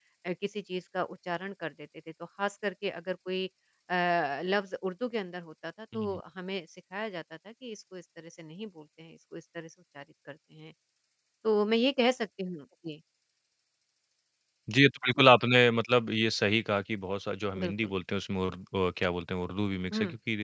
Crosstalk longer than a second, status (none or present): none